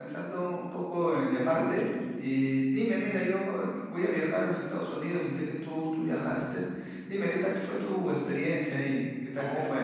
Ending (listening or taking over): taking over